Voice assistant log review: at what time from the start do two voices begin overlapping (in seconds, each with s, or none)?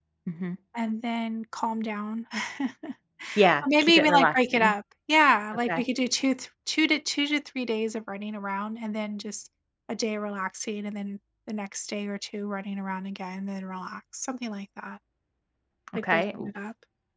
3.4 s